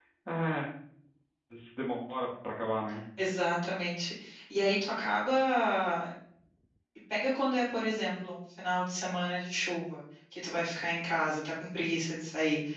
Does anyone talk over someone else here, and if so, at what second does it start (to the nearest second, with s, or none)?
none